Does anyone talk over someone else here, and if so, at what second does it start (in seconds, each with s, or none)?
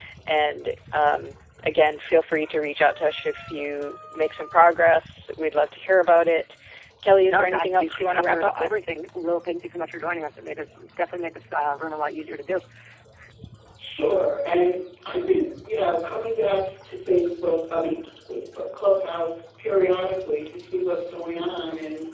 7.3 s